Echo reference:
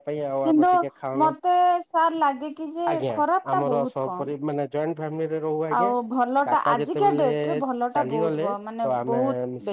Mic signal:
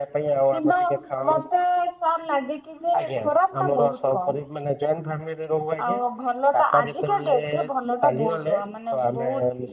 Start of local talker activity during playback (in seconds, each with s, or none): none